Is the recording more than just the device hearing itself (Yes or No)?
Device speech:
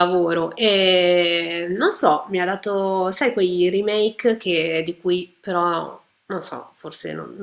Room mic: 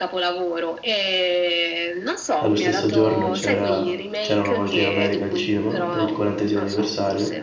Yes